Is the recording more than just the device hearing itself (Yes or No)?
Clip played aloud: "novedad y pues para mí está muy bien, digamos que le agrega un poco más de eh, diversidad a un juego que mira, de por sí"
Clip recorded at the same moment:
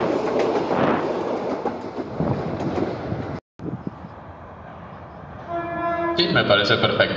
Yes